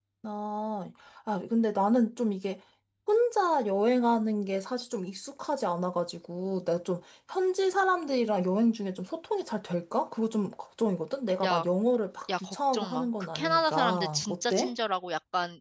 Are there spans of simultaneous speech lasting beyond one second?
Yes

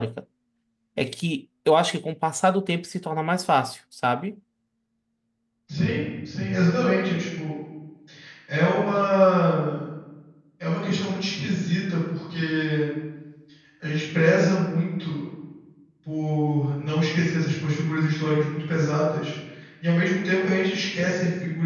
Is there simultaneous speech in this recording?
No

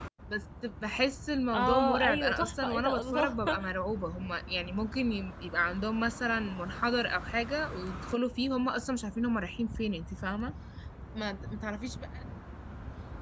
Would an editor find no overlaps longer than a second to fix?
No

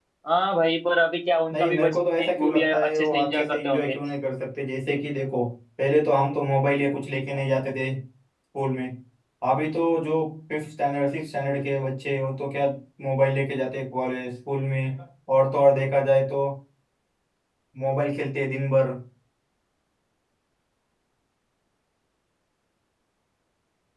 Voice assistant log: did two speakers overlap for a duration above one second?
Yes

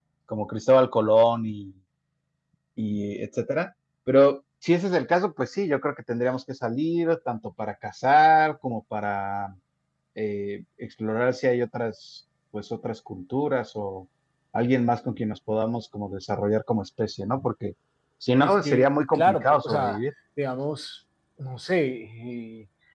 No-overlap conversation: No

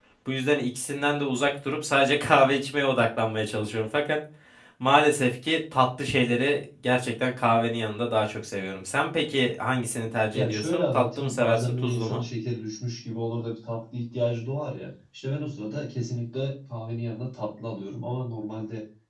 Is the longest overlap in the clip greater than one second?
Yes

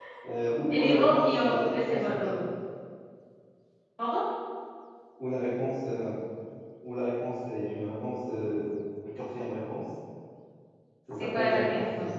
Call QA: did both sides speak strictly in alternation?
No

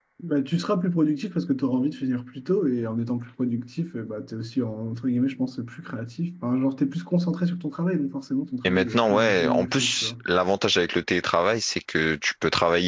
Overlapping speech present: Yes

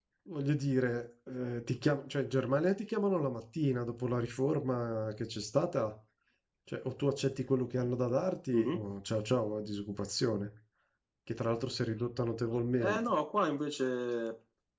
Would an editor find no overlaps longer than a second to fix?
Yes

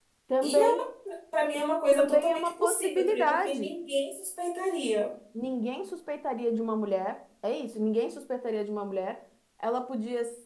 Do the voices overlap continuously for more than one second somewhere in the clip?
Yes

